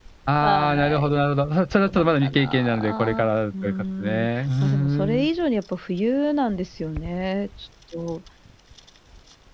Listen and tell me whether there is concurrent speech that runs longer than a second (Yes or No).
Yes